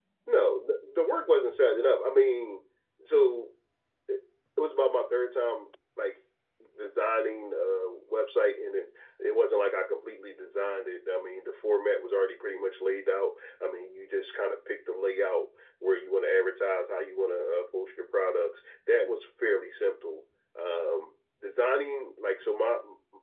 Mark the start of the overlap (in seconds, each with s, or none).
none